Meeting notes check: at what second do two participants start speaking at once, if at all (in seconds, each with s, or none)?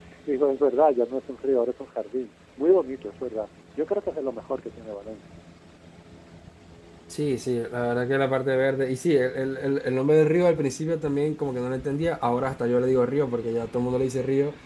none